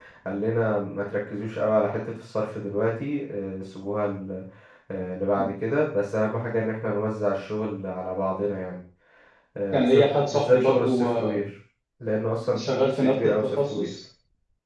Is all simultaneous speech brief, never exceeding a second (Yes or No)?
No